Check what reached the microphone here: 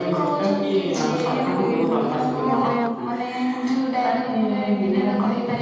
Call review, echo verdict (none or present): present